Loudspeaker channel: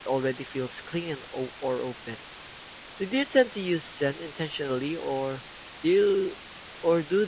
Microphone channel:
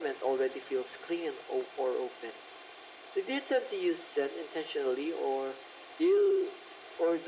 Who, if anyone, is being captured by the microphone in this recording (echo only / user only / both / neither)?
echo only